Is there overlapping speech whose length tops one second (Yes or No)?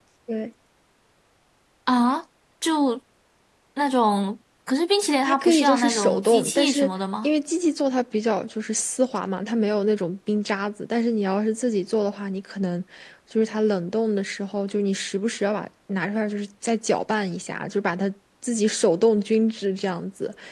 Yes